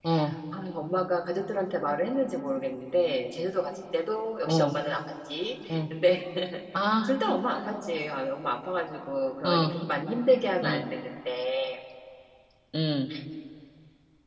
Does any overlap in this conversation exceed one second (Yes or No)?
No